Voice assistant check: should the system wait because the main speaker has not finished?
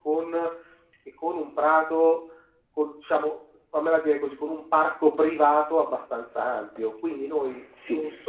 No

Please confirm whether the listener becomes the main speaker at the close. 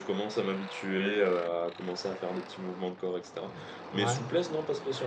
No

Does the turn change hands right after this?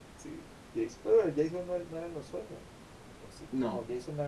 No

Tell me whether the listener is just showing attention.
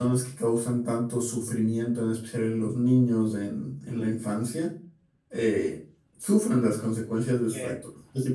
Yes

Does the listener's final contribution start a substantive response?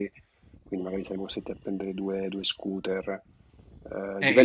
No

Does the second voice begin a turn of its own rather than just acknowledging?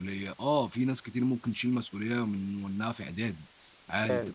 No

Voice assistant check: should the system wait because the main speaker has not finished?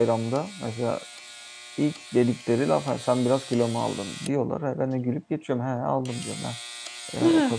Yes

